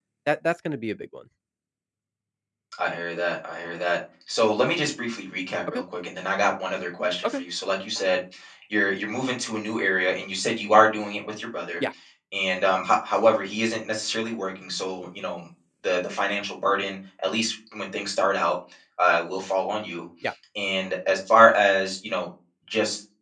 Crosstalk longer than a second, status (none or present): none